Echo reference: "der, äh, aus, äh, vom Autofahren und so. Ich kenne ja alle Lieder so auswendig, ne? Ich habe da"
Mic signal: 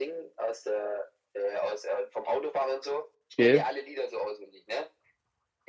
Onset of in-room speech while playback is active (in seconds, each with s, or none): 3.4 s